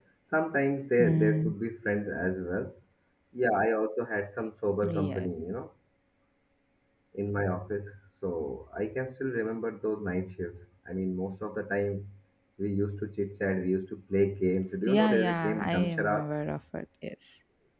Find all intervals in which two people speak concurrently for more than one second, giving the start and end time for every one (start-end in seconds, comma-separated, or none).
14.9-16.3